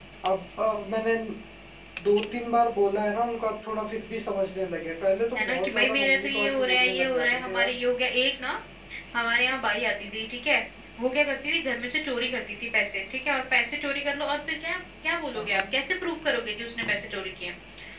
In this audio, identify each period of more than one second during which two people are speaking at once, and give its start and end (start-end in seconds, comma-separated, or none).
5.4-7.7